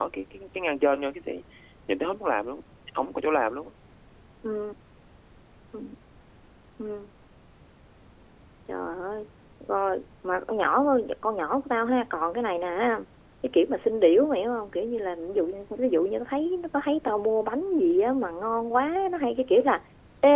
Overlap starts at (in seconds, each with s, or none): none